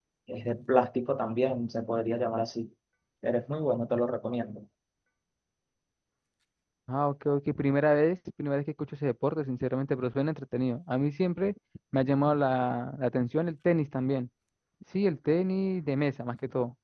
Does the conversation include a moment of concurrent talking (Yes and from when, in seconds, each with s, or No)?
No